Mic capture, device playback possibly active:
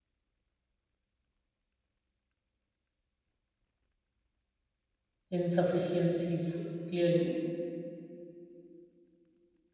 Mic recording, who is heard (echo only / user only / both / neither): user only